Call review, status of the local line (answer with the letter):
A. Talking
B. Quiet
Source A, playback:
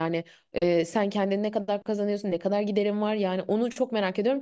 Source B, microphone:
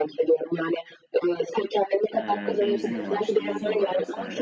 A